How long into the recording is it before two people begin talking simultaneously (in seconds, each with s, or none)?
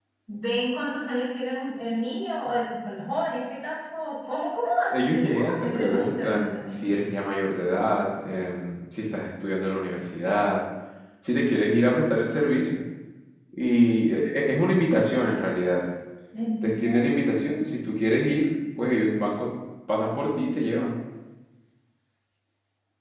4.9 s